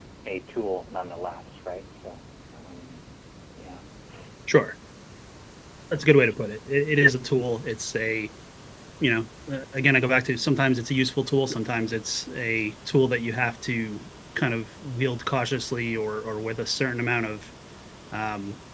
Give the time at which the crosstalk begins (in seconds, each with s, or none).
none